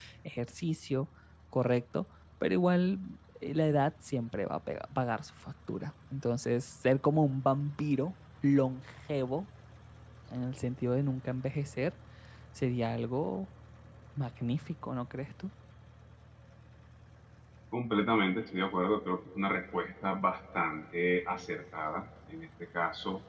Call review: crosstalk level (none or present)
none